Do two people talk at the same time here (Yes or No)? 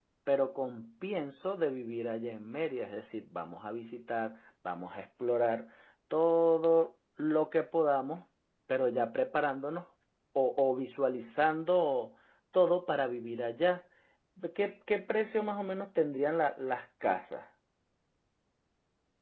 No